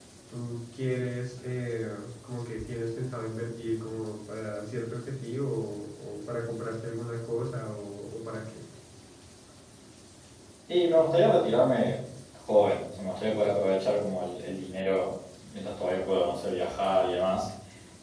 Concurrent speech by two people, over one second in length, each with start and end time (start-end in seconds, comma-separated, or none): none